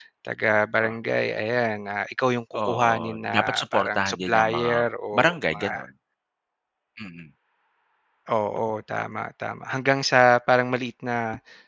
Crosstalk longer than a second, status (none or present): present